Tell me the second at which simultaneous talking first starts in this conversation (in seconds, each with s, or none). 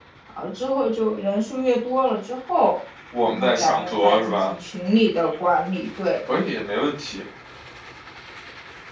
3.1 s